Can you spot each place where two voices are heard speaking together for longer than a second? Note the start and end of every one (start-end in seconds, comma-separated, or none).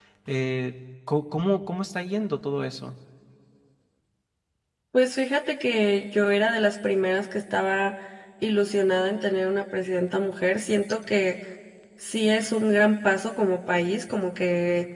none